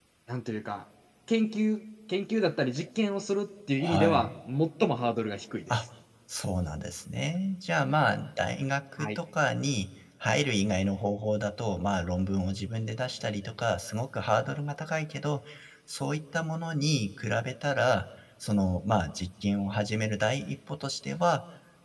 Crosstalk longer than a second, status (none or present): none